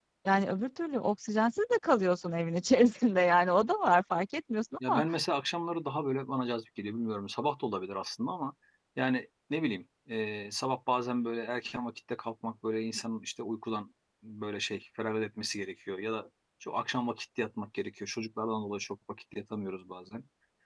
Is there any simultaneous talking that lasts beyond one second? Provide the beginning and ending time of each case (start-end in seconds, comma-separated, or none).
none